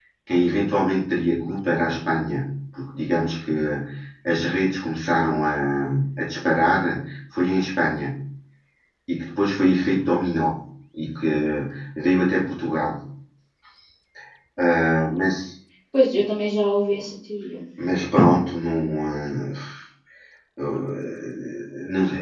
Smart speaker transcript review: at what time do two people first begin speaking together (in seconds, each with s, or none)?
none